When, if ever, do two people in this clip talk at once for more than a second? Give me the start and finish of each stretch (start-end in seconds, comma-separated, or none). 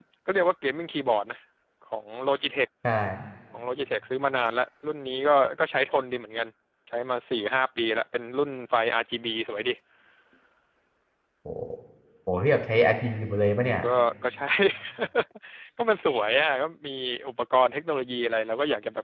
none